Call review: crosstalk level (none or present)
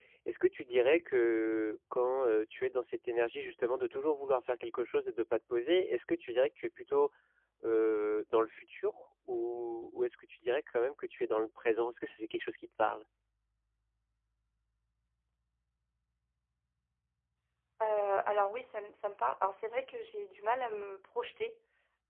none